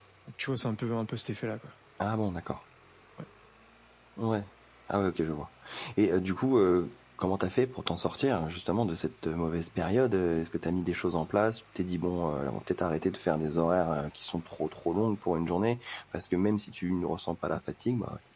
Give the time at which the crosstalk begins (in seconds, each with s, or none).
none